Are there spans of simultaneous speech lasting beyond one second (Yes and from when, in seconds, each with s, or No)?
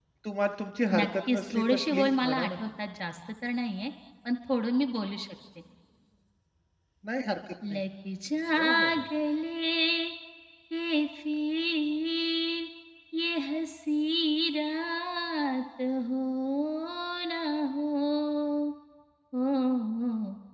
Yes, from 1.0 s